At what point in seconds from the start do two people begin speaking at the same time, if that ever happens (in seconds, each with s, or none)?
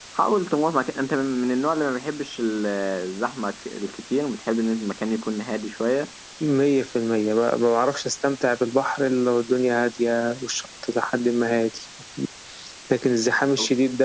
none